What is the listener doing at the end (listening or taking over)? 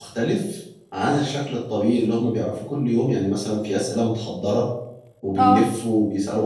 listening